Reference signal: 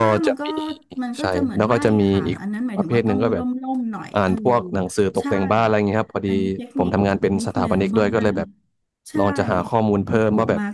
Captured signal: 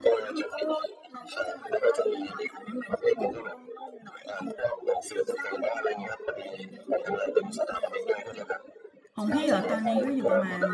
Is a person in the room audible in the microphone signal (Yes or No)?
Yes